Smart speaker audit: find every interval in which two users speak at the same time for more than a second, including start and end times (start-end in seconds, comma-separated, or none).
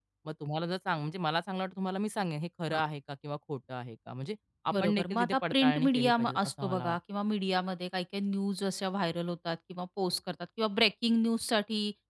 4.7-7.0